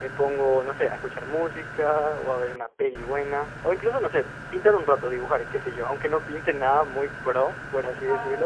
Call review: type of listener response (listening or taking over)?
taking over